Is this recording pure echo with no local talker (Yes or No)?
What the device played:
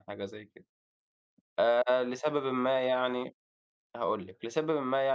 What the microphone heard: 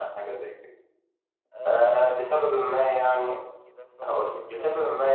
No